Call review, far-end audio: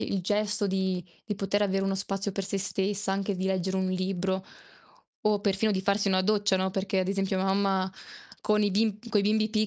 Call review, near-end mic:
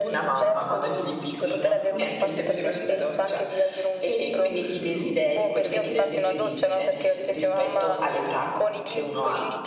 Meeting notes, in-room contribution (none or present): present